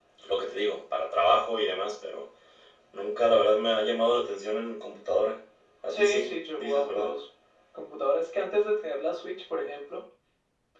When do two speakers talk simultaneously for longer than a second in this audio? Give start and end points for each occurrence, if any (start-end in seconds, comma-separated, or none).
5.9-7.1